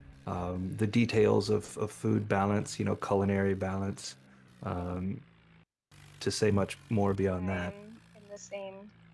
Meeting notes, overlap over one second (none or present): none